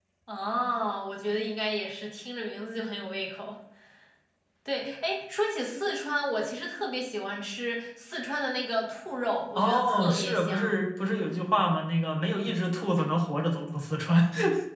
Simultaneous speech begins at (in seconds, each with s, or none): 9.6 s